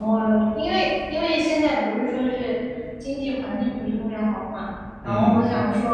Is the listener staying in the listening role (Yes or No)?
Yes